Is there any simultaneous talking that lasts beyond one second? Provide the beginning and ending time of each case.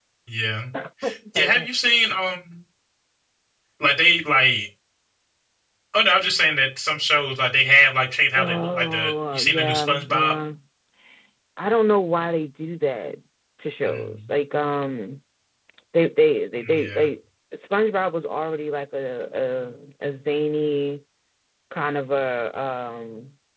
8.3-10.3

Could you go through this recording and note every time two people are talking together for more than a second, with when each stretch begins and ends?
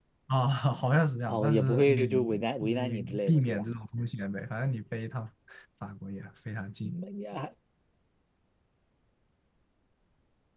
1.3-3.6

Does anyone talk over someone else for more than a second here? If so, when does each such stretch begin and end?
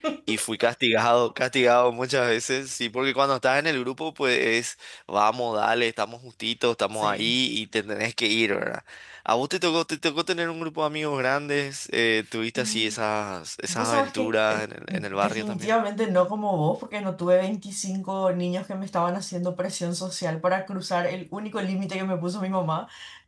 13.7-15.7

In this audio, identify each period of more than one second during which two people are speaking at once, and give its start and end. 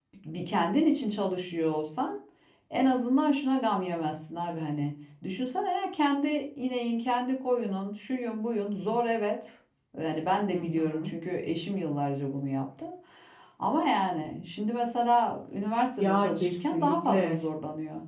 16.0-17.4

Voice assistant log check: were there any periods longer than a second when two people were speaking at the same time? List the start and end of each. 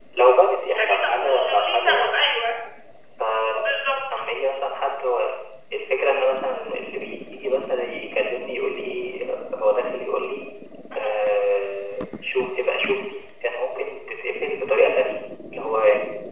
0.8-2.1

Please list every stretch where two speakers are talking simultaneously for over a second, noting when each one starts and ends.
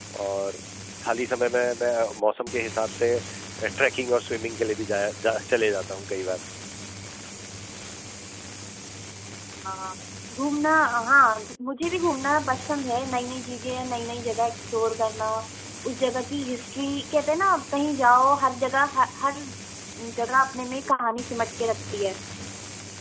none

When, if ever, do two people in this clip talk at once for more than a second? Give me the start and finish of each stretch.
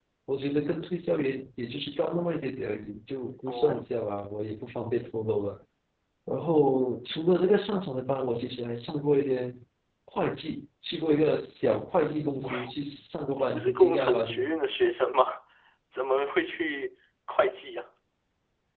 13.3-14.6

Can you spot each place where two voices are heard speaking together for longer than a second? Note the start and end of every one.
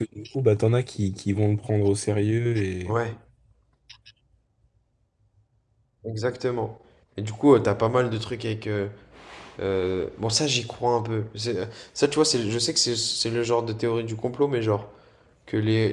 none

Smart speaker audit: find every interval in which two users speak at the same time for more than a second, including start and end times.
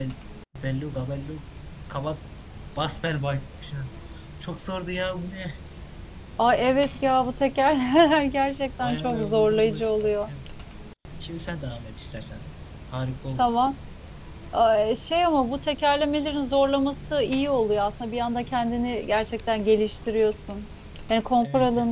8.8-10.3

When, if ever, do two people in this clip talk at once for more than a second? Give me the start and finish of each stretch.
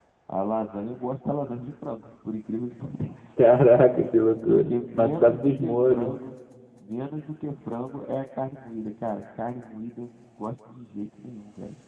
4.5-6.2

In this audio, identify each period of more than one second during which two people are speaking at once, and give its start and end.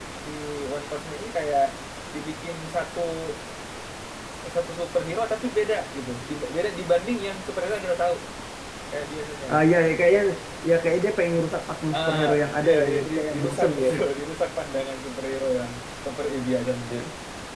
12.6-13.9

